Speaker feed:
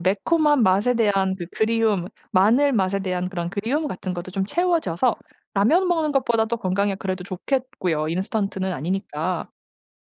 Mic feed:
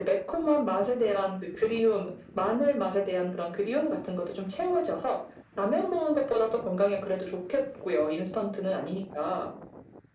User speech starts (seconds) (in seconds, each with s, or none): none